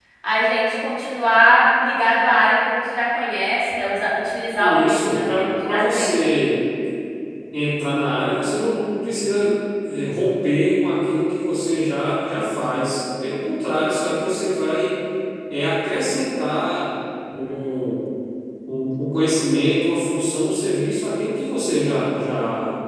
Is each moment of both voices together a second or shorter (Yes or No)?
No